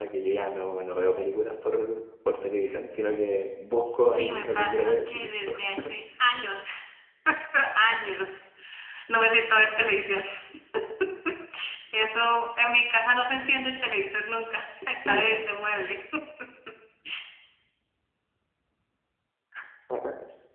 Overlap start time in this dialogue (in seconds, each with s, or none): 4.1 s